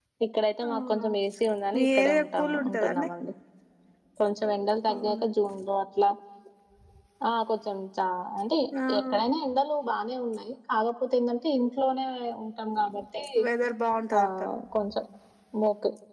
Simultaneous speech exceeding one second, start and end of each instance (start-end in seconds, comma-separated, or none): 1.7-3.1